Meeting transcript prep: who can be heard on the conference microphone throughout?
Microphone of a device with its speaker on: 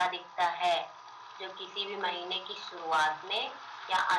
echo only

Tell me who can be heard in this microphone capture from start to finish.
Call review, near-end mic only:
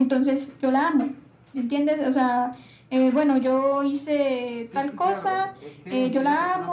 both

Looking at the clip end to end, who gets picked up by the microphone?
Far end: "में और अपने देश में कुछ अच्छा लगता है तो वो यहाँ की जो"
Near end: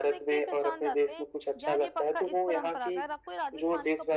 both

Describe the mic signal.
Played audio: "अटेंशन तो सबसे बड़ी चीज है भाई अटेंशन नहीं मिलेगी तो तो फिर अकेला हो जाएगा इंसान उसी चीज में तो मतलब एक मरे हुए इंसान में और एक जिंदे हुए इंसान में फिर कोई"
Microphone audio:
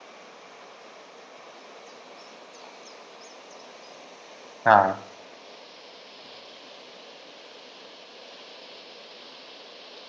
user only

